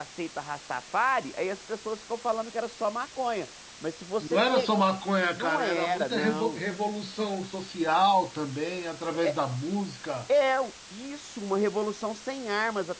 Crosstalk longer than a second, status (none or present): present